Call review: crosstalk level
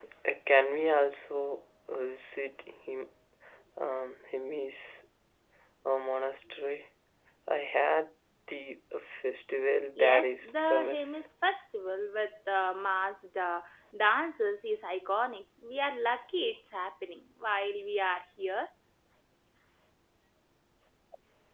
present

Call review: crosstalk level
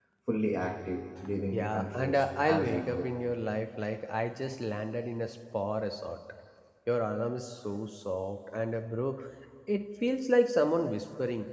present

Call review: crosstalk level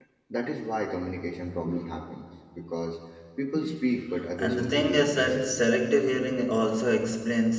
present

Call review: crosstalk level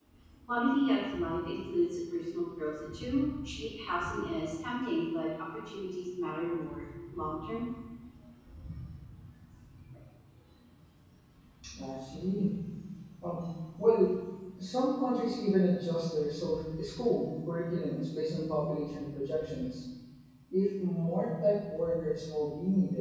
none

